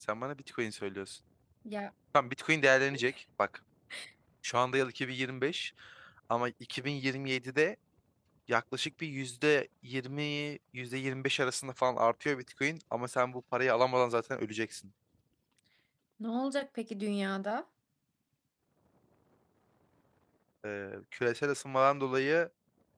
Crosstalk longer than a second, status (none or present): none